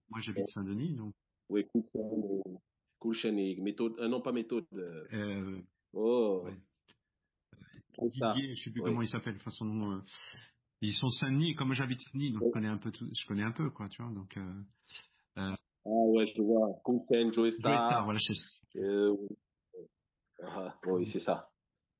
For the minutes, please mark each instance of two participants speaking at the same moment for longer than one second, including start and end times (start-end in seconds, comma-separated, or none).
none